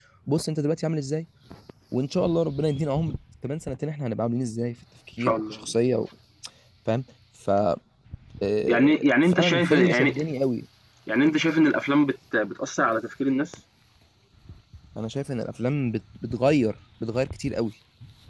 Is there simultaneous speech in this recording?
Yes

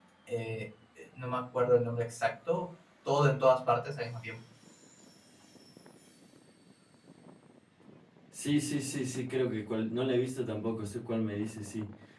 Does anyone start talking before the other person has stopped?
No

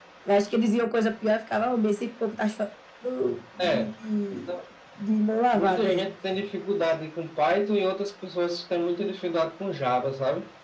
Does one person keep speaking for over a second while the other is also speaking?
No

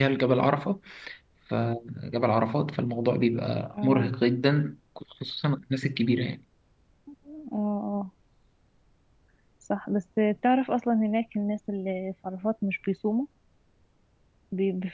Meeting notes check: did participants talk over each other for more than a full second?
No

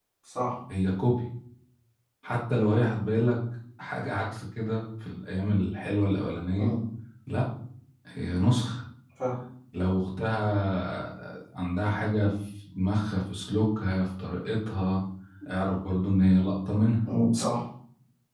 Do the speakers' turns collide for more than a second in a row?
No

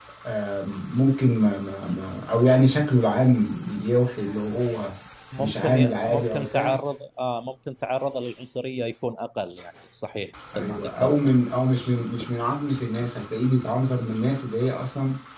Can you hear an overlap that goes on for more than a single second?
Yes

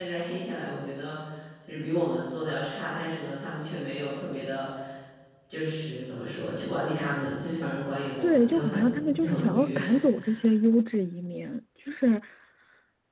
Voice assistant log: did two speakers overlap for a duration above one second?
Yes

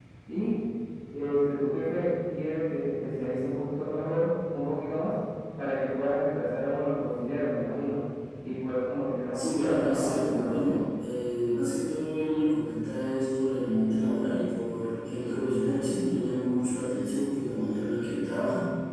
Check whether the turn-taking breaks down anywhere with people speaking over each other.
Yes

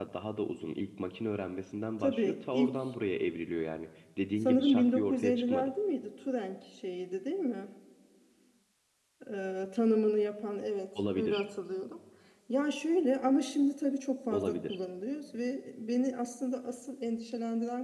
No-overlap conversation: No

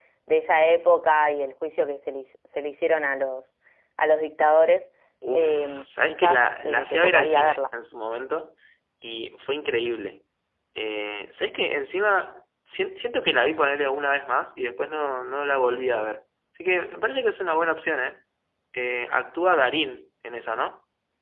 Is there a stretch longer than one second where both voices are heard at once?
Yes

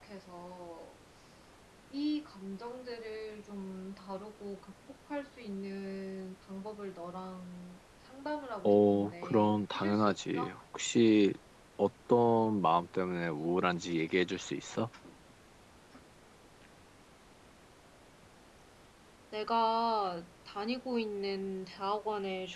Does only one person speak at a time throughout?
No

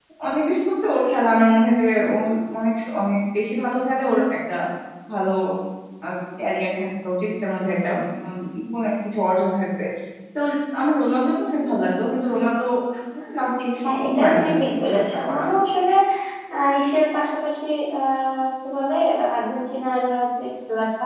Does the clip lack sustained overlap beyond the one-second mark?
No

